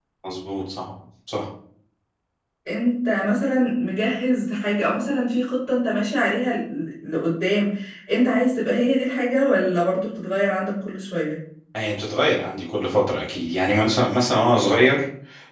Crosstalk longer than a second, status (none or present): none